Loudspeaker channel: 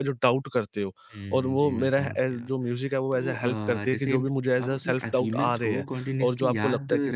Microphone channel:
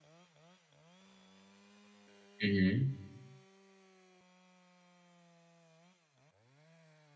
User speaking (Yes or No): Yes